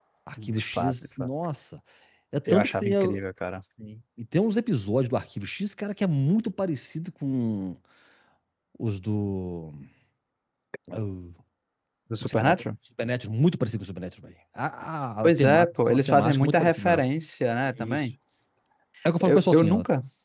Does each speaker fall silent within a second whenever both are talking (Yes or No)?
No